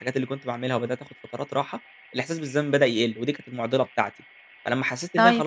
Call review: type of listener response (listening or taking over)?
listening